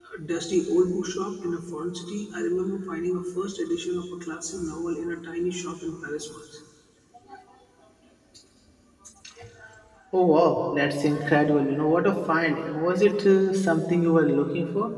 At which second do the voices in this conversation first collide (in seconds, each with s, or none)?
none